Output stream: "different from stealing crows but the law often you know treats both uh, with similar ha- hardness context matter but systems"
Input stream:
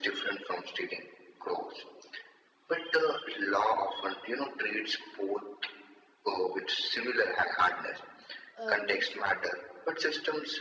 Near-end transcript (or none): Uh, reform.